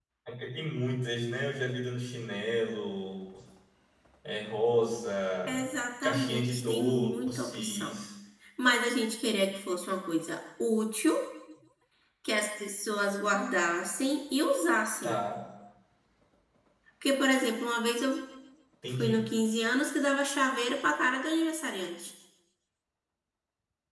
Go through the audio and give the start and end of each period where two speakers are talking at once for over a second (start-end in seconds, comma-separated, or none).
6.0-7.9